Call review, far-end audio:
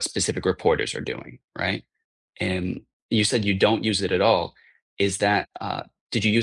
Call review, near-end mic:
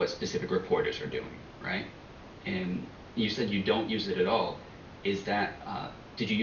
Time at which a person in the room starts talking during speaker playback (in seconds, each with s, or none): none